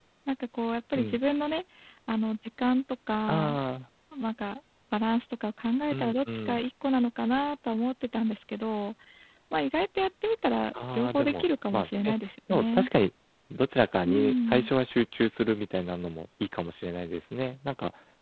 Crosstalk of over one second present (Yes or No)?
Yes